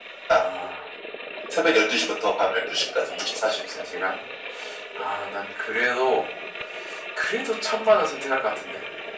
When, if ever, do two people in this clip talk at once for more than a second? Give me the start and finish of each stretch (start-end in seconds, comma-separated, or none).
none